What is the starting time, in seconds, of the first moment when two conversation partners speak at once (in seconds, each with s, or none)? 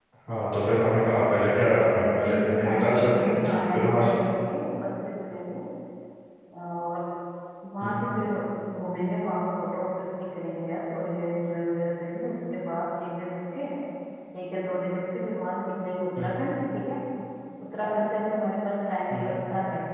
1.9 s